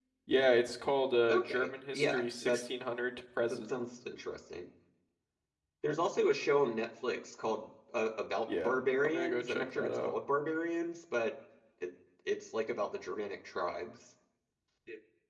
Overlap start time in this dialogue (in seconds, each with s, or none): 1.3 s